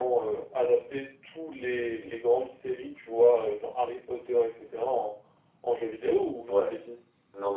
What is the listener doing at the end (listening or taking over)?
taking over